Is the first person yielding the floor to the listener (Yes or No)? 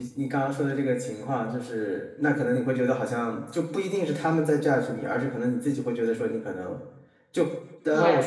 No